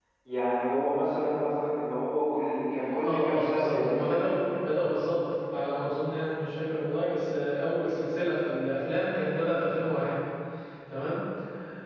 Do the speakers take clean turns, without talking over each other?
No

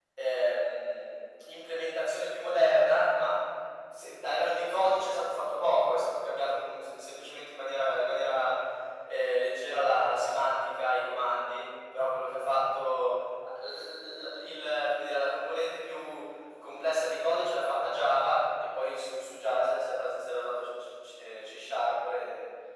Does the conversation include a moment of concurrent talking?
No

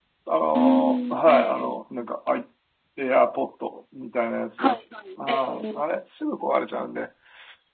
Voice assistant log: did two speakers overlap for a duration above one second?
Yes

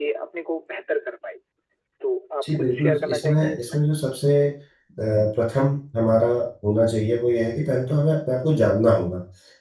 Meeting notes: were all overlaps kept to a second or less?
No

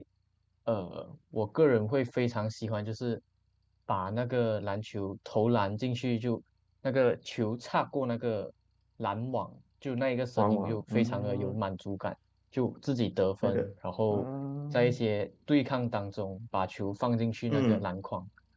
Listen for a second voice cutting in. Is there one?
Yes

